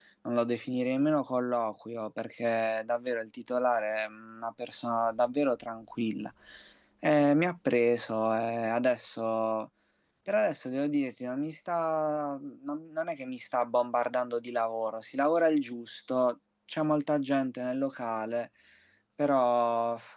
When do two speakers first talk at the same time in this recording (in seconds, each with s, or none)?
none